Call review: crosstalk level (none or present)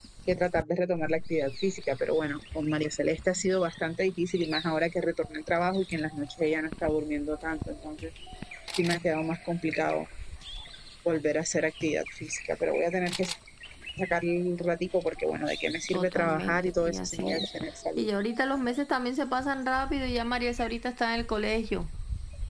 present